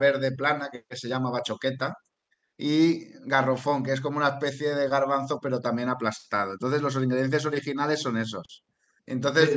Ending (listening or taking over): listening